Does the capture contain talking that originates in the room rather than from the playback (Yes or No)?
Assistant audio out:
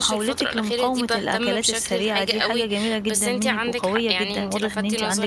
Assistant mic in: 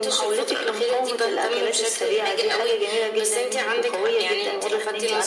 No